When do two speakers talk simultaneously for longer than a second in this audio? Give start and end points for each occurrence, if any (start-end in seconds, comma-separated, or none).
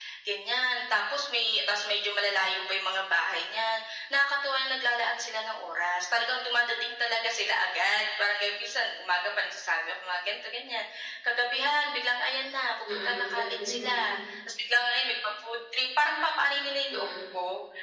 12.9-14.2